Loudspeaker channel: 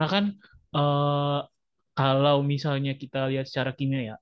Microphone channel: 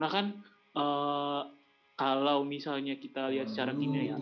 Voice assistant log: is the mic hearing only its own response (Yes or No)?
No